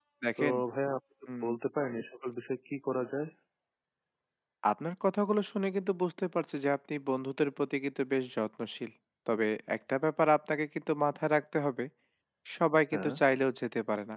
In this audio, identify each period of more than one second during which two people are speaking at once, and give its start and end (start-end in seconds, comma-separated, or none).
none